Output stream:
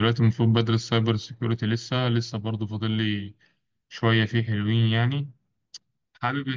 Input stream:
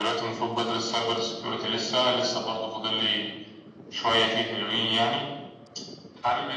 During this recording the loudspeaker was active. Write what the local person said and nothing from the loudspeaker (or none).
none